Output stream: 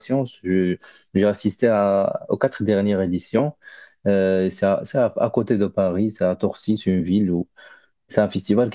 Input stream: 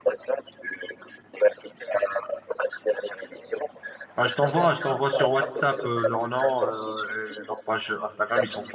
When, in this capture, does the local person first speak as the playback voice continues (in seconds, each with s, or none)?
4.2 s